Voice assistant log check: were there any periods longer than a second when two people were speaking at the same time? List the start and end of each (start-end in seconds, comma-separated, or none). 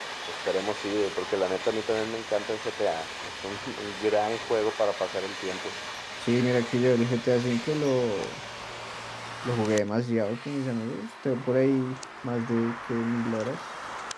none